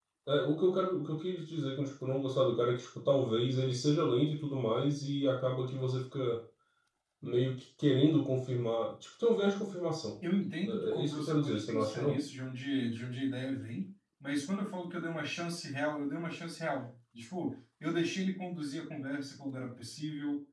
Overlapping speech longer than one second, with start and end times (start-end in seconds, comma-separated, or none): 10.6-12.2